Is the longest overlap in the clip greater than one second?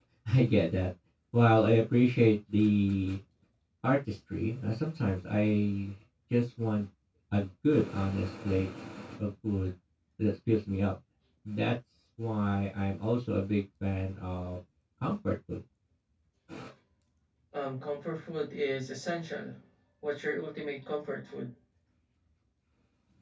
No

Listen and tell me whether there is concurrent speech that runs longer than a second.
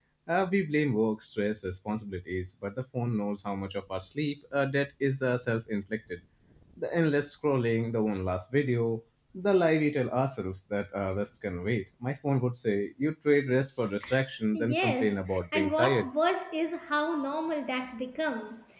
Yes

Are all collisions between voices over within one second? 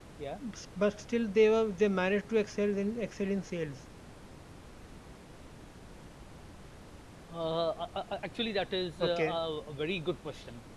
Yes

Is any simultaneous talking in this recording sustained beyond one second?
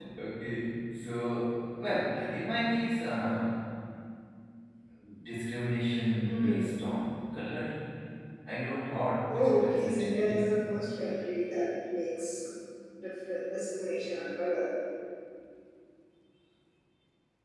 Yes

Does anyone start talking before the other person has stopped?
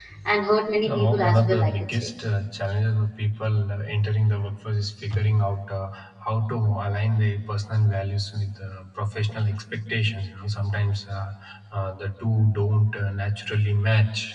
Yes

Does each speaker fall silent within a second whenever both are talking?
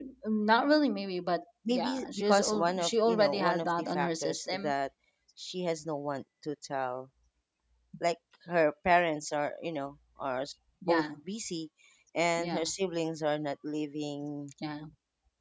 No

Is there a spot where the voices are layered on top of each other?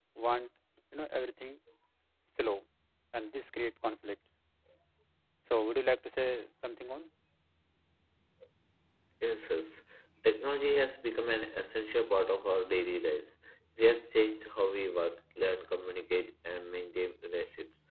No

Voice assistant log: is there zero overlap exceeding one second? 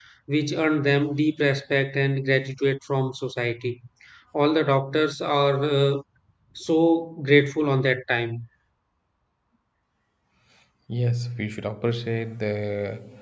Yes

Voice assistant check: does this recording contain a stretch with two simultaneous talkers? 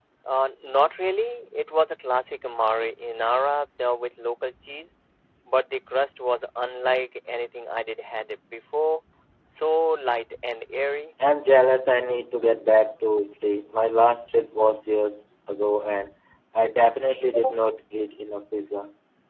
No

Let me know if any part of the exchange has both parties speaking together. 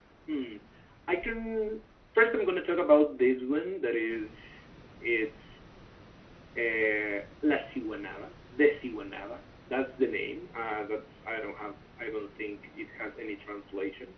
No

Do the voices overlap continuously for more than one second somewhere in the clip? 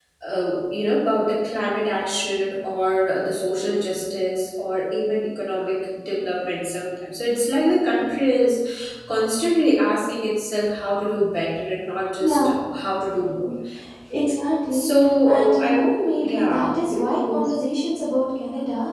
Yes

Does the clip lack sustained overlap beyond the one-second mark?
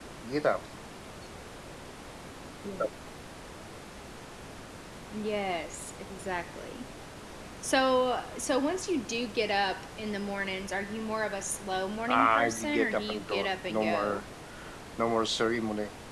No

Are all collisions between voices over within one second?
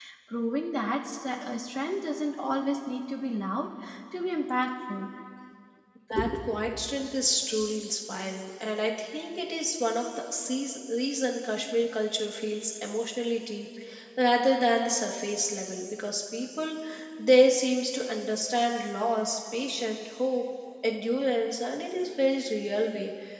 Yes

